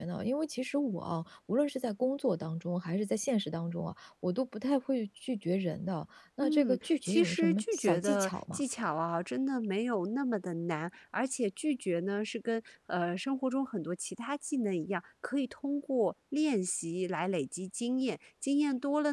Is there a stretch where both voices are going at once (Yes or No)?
Yes